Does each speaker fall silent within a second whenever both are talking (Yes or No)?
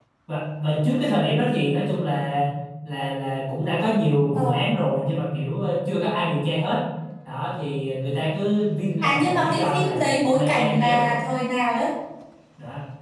No